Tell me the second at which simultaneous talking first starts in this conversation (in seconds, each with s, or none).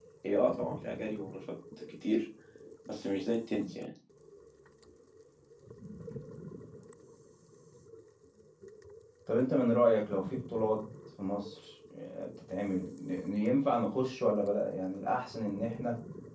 none